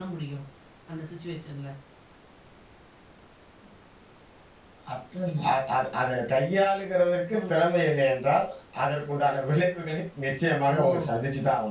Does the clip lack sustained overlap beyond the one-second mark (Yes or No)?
Yes